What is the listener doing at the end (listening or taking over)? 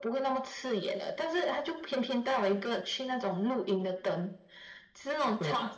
listening